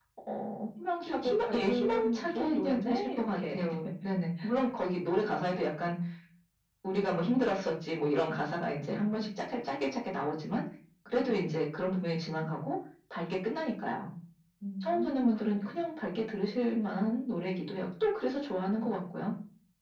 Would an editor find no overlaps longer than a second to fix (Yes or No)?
No